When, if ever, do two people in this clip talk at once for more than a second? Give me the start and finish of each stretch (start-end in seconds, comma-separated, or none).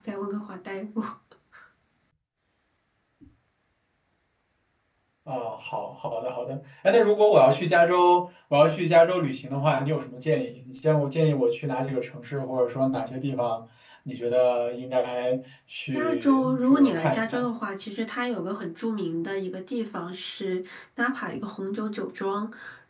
15.9-17.5